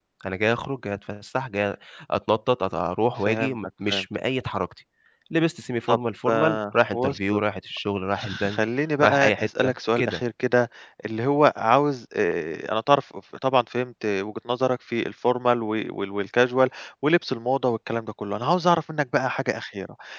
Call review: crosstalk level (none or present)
present